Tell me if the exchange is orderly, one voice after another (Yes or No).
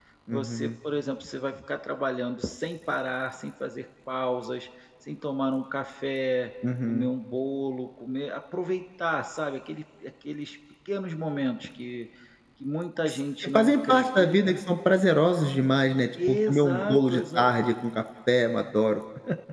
No